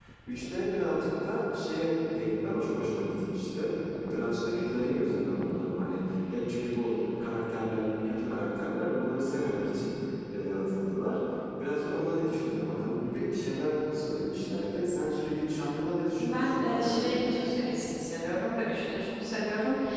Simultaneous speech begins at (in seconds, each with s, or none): 16.2 s